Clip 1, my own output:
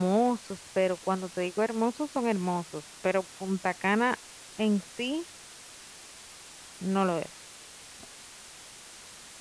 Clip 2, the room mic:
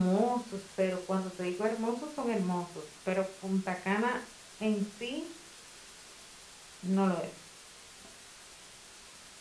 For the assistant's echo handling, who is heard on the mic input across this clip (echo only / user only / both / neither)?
echo only